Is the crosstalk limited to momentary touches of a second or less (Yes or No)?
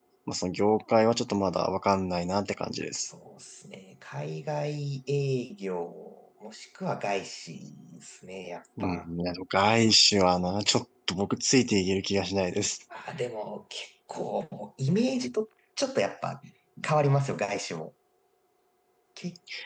Yes